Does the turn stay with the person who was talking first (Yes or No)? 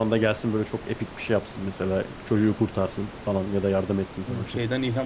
No